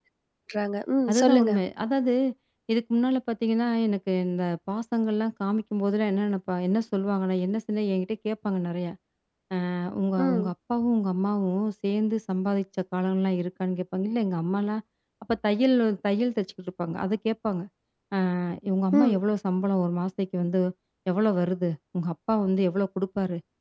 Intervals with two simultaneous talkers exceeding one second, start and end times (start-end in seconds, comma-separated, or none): none